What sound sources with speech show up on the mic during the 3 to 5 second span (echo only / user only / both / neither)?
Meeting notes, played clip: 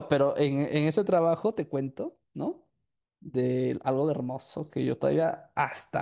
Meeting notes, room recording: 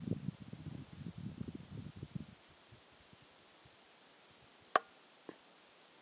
neither